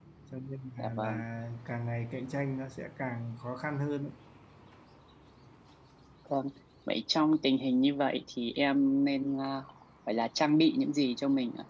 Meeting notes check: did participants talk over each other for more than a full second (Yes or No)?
No